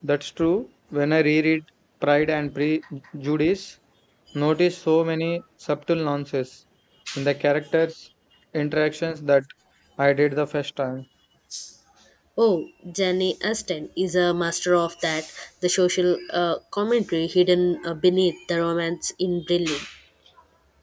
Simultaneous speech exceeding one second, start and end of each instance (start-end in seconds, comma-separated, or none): none